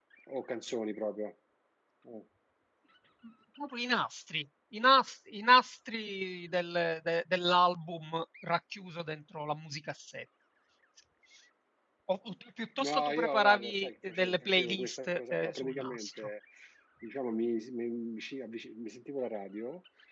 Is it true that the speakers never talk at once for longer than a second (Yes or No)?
No